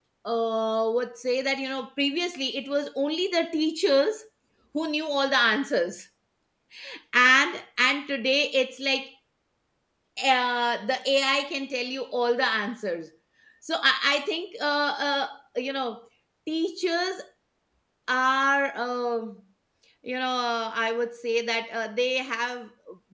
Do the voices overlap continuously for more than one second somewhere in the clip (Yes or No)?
No